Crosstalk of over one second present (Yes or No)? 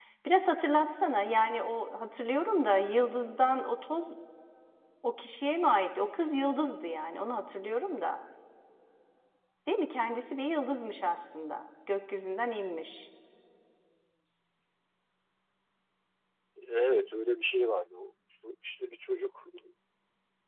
No